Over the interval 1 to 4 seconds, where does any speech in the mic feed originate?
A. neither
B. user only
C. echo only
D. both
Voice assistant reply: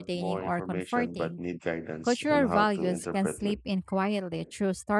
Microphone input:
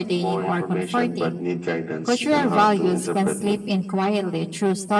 C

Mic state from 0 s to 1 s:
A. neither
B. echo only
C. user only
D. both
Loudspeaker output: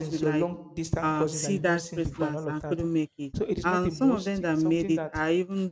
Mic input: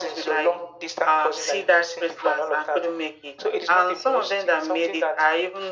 B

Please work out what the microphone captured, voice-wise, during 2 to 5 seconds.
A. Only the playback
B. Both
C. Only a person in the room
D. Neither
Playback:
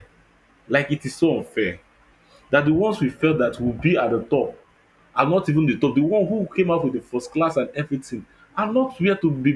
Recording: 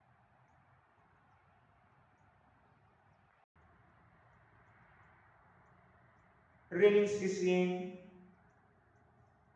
D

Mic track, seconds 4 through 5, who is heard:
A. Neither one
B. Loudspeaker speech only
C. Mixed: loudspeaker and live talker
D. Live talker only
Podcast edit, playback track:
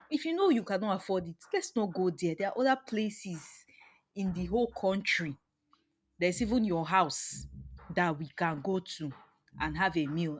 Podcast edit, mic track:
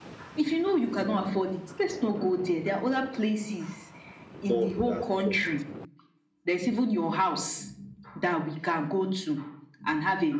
C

